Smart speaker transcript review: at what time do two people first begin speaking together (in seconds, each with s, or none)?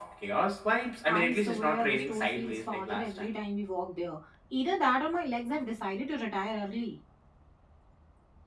1.0 s